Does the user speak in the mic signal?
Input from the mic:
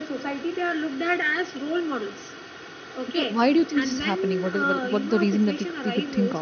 Yes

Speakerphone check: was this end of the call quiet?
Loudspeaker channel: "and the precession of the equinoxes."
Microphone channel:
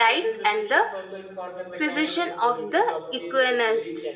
No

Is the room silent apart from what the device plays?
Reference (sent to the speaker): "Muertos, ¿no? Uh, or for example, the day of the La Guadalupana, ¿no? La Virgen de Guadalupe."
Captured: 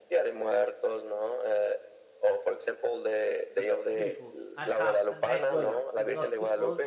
No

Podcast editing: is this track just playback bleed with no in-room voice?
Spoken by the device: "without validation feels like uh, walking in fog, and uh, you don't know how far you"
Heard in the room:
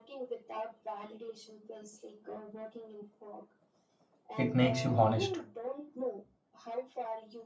No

